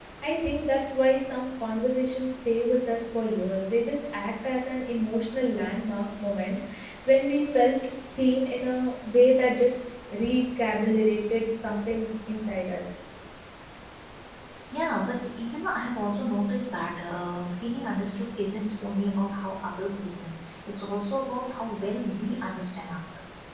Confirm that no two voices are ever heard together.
Yes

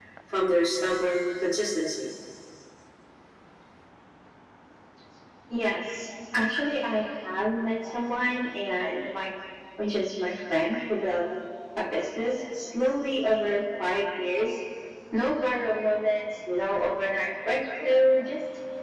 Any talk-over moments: No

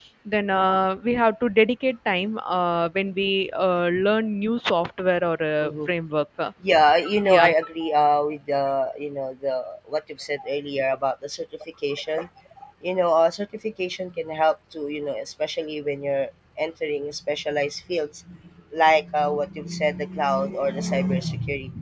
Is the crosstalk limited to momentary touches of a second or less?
Yes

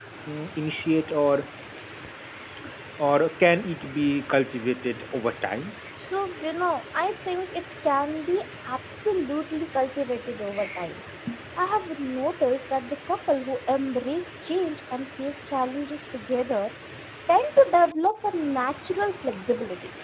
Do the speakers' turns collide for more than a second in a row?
No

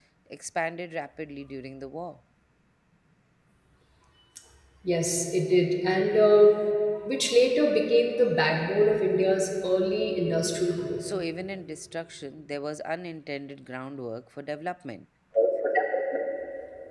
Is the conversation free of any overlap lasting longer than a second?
Yes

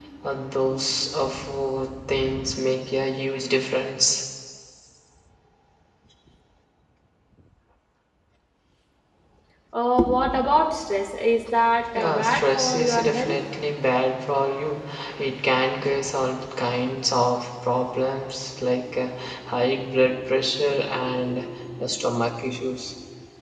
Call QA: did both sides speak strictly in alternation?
No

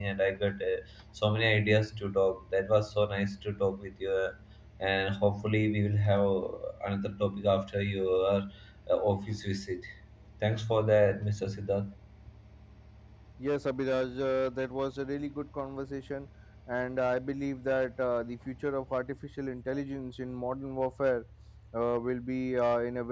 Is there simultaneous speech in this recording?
No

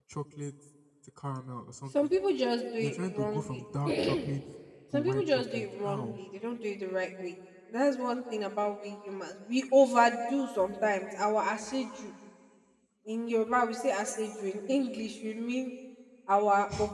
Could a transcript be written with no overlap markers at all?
No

